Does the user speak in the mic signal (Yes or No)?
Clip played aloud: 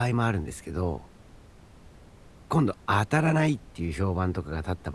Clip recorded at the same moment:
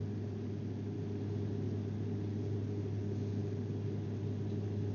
No